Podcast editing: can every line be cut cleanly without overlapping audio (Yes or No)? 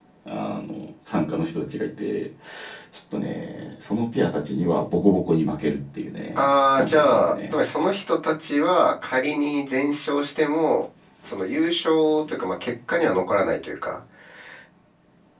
No